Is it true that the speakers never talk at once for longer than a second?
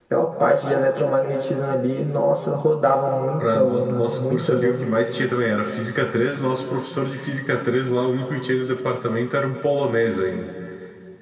No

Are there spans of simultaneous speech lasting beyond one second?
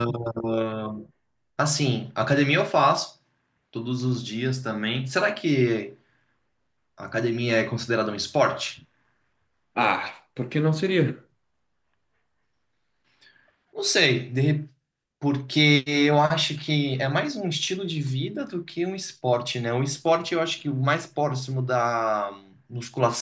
No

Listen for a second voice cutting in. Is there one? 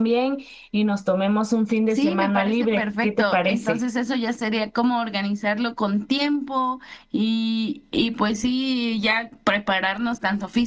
Yes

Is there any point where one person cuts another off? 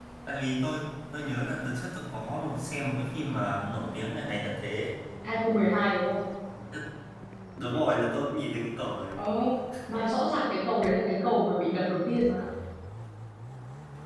No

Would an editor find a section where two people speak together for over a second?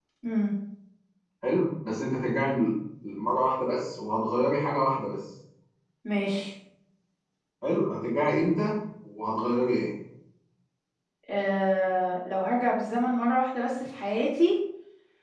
No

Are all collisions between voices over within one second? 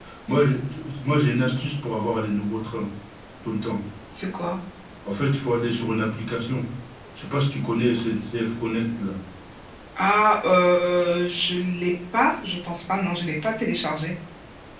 Yes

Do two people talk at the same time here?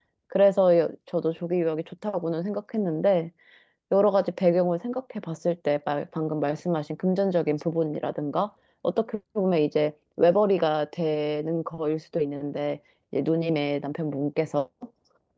No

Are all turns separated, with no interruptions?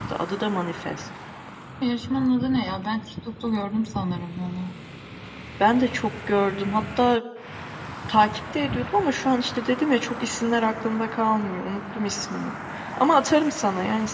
Yes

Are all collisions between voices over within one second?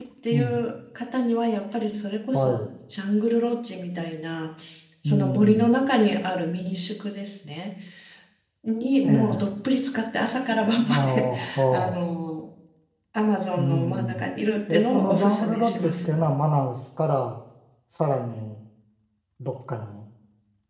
No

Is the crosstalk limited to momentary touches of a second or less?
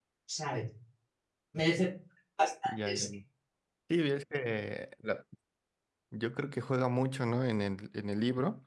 Yes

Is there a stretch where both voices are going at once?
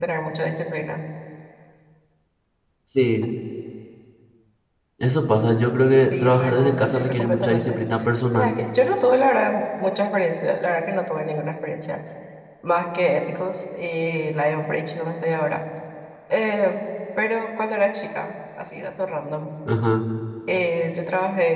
Yes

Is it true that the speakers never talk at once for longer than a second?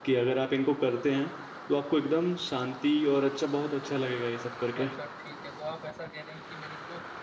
Yes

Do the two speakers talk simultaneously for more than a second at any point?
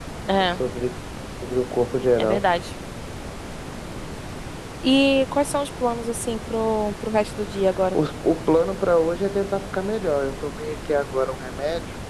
No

